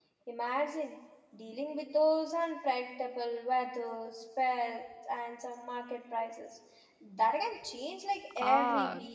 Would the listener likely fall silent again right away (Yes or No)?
No